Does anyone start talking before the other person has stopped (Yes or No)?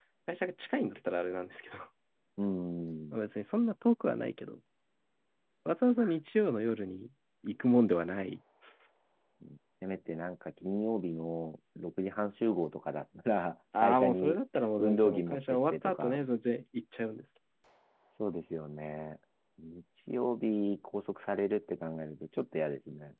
Yes